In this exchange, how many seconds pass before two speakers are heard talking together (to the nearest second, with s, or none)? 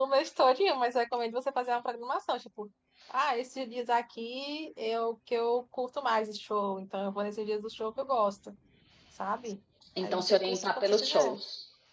10 s